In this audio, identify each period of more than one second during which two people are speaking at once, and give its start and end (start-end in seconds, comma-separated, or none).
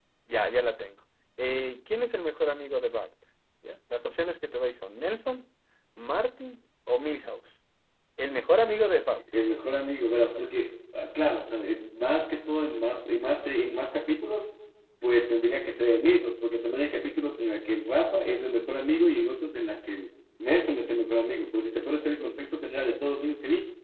none